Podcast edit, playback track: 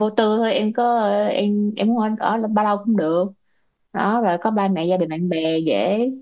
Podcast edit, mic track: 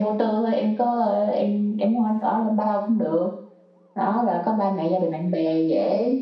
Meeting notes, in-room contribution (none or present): none